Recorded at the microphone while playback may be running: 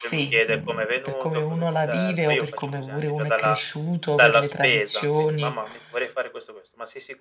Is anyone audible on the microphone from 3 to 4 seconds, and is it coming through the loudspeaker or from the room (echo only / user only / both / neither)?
both